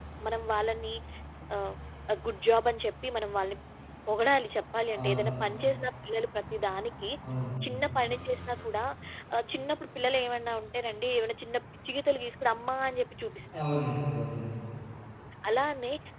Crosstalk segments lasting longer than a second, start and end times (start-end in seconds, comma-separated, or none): none